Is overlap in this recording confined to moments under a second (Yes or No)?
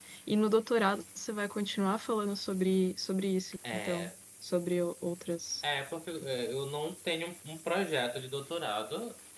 Yes